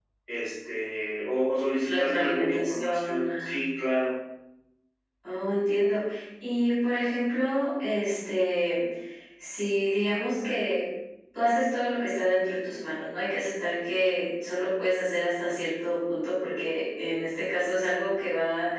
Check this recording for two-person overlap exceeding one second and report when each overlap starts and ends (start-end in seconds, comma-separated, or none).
2.0-3.6